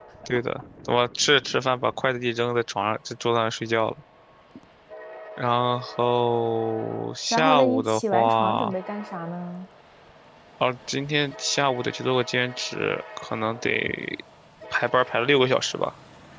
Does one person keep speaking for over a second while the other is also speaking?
Yes, from 7.3 s

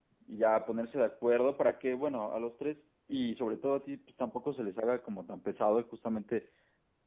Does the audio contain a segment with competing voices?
No

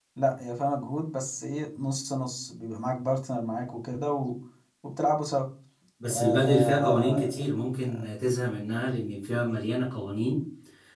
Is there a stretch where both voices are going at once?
Yes, from 6.1 s

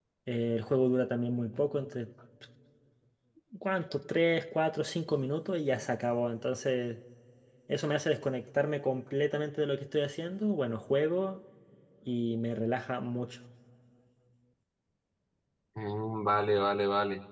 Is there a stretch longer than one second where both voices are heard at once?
No

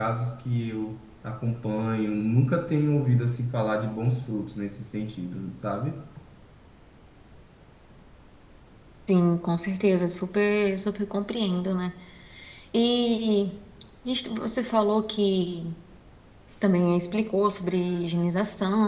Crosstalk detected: No

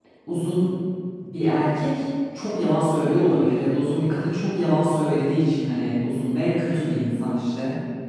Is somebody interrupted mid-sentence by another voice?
No

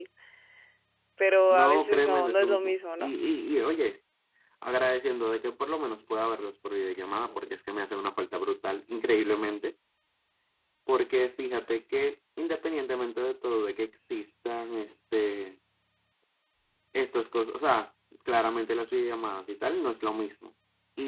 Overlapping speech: Yes, from 1.5 s

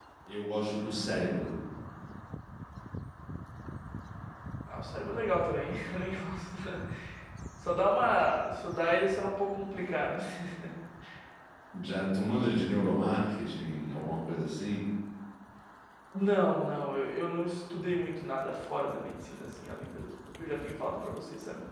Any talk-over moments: No

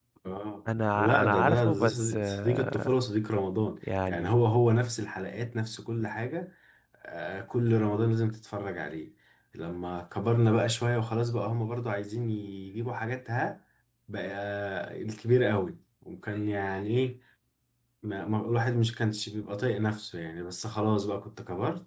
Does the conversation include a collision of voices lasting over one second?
Yes, from 0.9 s

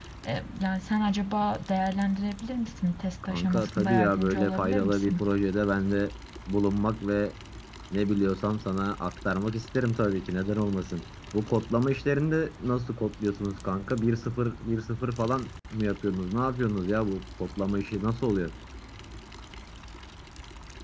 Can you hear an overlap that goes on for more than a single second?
Yes, from 3.2 s

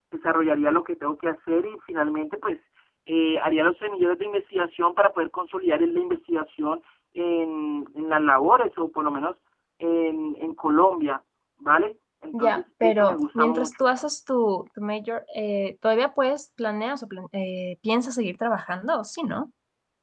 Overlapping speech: Yes, from 12.3 s

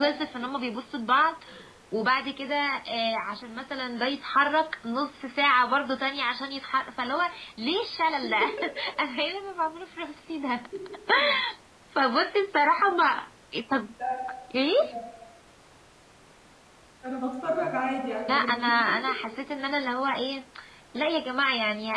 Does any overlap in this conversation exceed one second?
No

